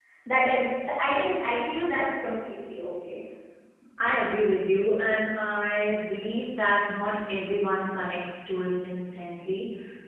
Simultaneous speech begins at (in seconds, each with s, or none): none